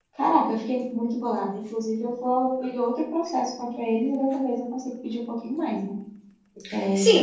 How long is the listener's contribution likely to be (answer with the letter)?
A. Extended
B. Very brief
A